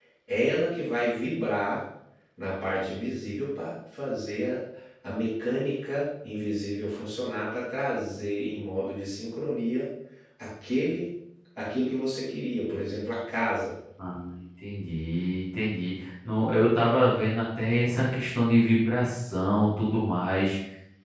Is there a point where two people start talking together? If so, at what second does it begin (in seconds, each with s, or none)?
none